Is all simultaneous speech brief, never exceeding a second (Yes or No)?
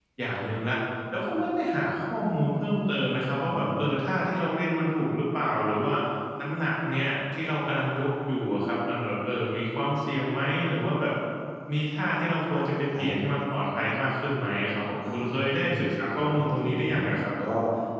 No